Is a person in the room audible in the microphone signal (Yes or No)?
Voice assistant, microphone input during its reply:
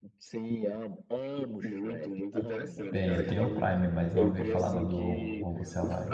Yes